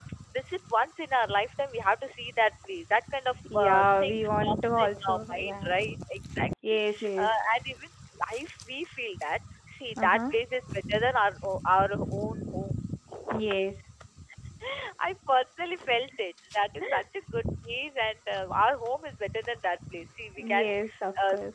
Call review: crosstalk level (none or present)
present